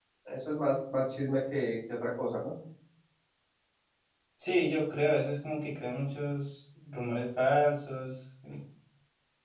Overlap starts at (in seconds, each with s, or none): none